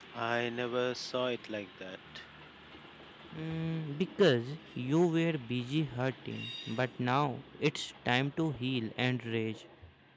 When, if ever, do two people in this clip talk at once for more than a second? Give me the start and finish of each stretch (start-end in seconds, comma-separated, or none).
none